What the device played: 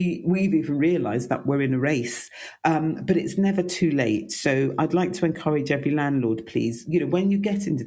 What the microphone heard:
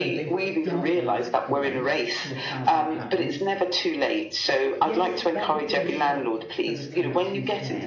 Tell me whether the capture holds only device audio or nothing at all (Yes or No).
No